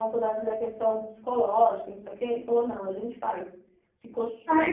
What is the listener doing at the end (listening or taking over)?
taking over